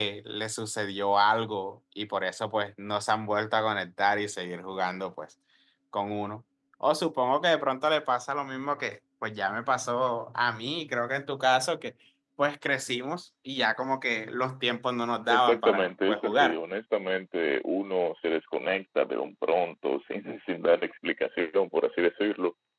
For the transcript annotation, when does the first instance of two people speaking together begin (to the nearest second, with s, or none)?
15 s